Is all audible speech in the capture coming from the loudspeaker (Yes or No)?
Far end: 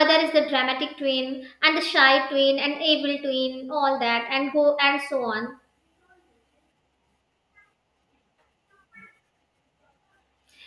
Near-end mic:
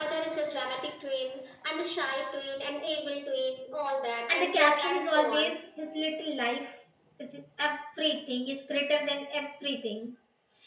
No